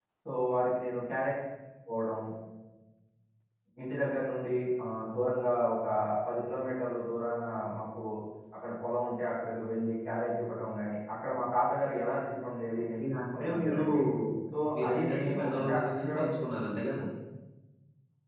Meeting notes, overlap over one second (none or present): present